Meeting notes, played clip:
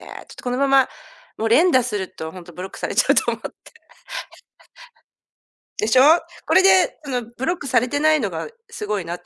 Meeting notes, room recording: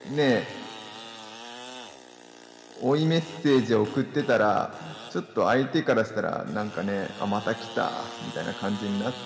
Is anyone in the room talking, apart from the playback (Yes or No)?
Yes